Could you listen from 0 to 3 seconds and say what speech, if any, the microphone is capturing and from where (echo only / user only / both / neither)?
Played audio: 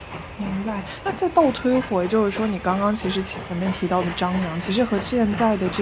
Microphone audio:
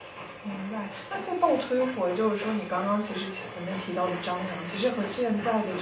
echo only